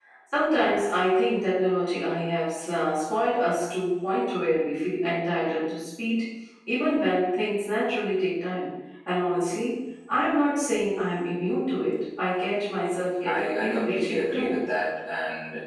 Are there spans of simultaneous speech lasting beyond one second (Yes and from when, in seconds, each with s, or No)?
Yes, from 13.2 s